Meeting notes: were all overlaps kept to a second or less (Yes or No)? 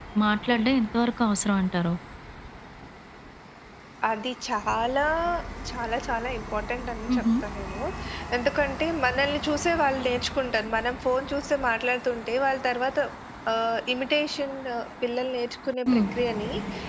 Yes